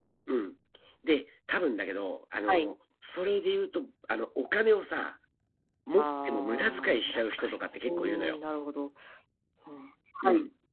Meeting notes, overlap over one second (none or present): present